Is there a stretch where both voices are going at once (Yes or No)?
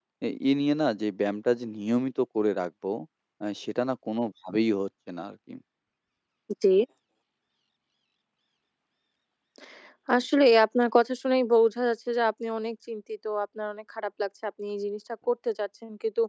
No